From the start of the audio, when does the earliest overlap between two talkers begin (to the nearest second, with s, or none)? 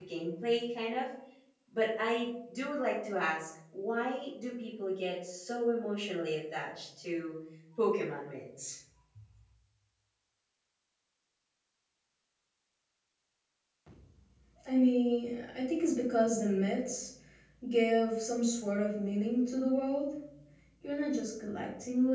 none